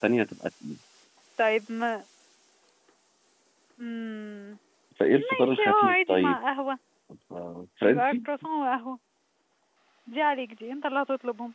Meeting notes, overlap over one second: present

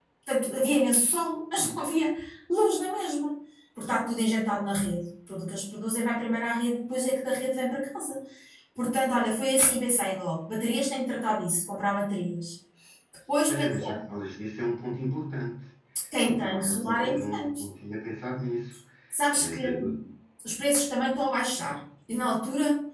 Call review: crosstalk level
present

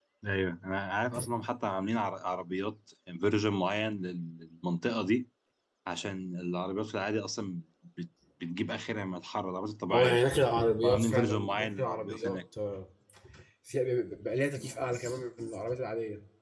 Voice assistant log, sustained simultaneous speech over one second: present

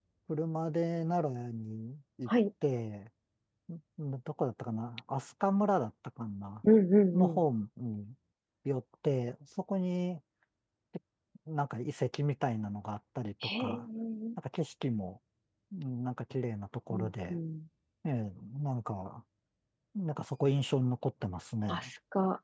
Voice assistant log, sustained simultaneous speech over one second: none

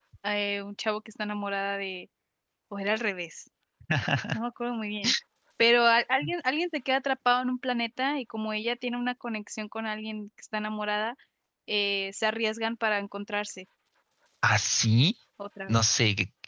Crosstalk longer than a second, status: none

